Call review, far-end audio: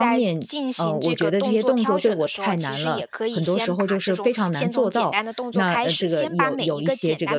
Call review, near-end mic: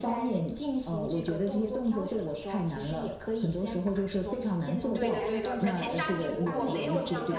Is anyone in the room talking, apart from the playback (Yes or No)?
Yes